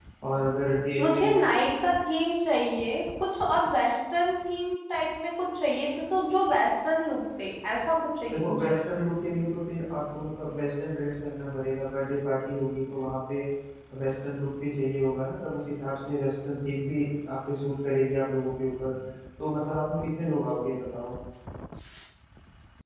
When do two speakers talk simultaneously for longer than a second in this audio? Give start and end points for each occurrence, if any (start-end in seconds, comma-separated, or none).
none